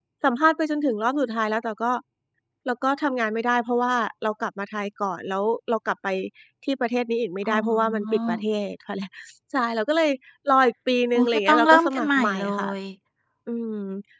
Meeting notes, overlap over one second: present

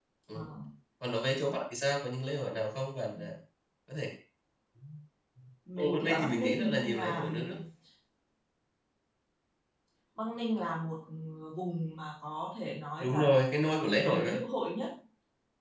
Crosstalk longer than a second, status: present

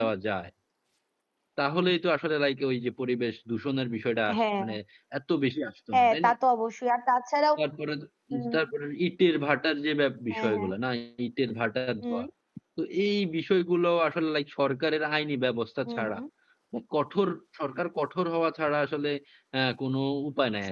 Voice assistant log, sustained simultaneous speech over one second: none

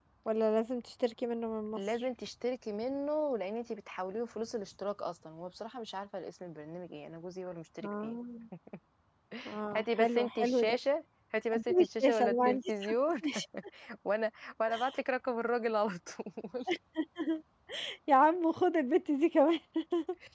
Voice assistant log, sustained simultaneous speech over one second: present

